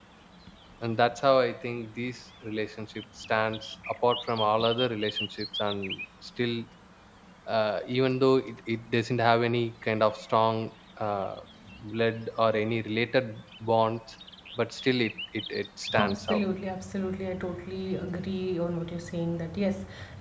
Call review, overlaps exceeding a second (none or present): none